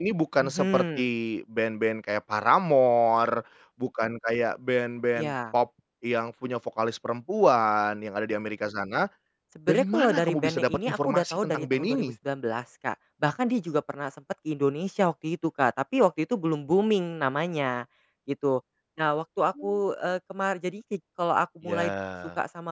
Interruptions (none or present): present